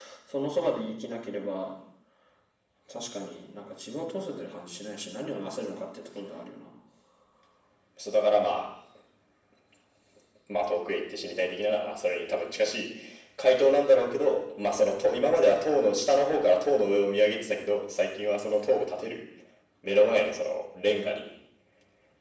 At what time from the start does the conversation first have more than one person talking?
none

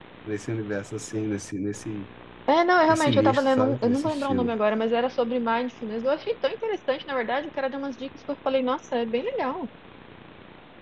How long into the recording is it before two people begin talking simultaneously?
3 s

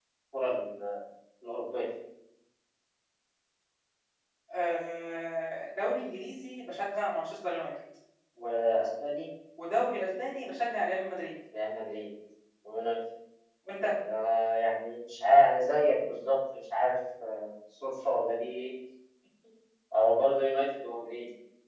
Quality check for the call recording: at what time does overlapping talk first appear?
none

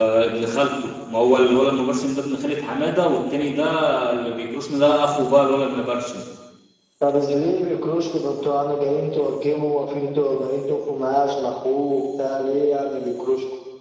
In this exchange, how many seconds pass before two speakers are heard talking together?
none

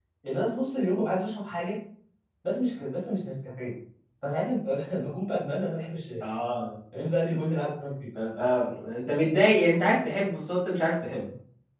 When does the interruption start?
none

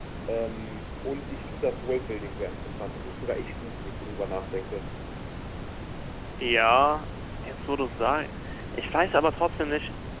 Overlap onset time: none

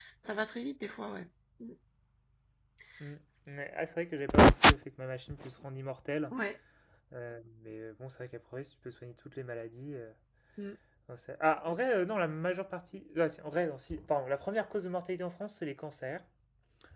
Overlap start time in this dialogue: none

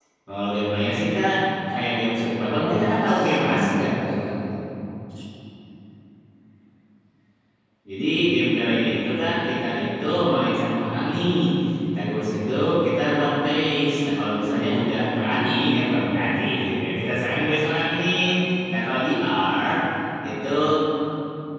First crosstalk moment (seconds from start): 2 s

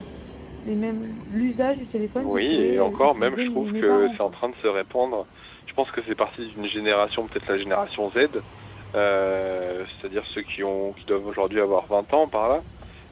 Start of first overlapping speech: 2 s

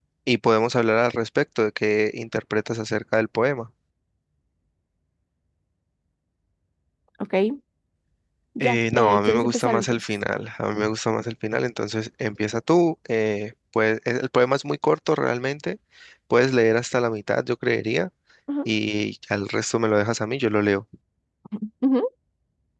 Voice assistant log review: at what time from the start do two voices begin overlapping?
9 s

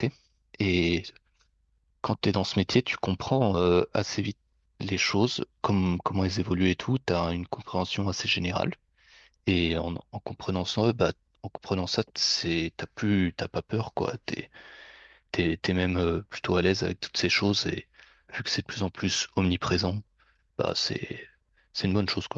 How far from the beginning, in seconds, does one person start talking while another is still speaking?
none

